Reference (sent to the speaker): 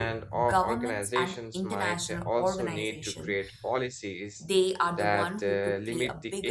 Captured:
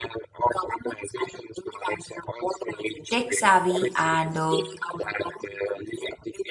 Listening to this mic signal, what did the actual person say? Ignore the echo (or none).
tech savvy and uh,